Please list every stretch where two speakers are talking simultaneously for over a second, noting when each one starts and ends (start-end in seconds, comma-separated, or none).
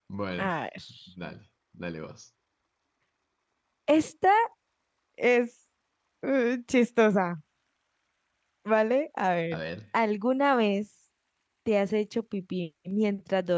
none